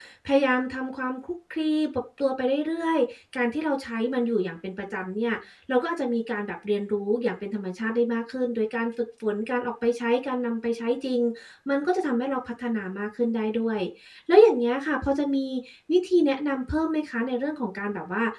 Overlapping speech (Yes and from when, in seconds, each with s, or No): No